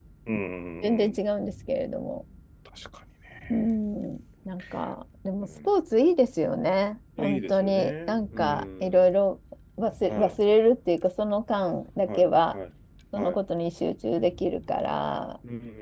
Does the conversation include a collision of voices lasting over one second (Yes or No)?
Yes